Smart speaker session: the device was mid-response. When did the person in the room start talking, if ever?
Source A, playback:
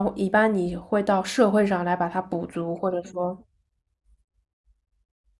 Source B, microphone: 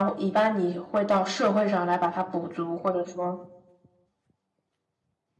none

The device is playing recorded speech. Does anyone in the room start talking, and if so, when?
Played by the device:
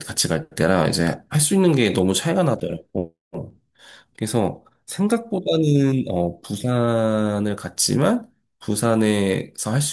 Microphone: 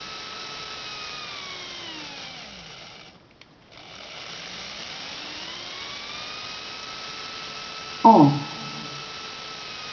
8.0 s

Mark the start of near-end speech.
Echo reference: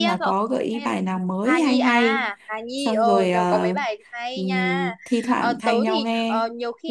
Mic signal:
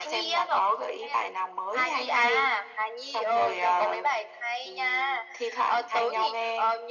none

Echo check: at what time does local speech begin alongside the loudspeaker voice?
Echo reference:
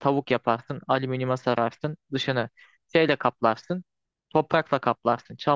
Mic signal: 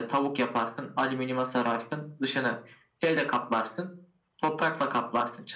none

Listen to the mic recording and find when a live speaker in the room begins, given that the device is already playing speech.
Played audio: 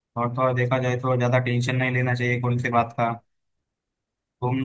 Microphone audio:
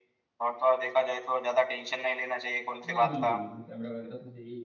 2.9 s

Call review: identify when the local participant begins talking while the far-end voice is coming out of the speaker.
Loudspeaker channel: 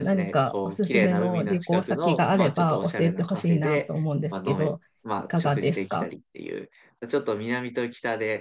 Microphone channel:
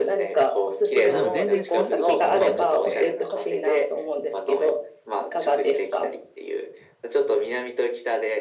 1.0 s

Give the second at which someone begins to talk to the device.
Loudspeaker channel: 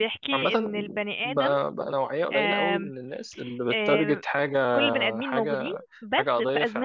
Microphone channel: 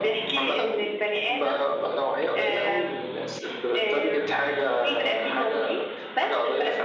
none

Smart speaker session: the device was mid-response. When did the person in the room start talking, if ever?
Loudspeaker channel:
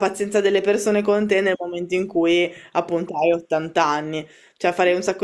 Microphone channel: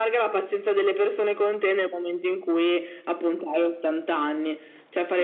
none

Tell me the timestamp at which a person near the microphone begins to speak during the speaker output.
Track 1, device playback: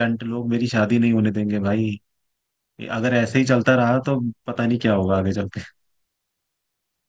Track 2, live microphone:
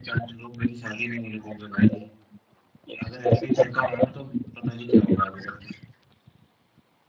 none

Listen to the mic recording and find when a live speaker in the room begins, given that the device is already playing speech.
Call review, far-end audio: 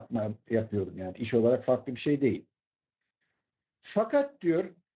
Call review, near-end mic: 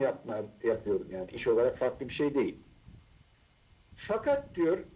none

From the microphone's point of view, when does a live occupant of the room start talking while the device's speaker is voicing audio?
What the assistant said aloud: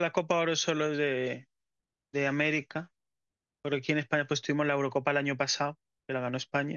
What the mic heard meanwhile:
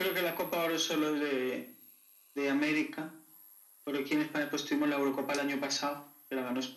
none

